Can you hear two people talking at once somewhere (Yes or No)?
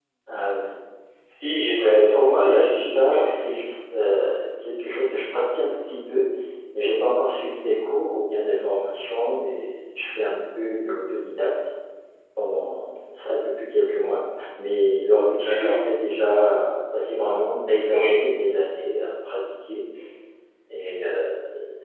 Yes